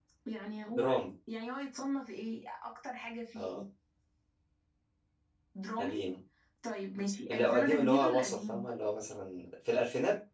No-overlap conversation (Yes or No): No